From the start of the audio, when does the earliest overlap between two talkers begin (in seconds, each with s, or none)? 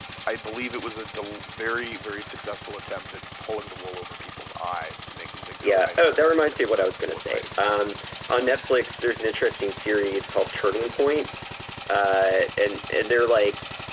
5.6 s